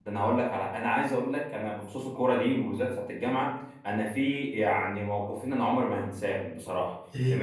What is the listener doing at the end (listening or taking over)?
listening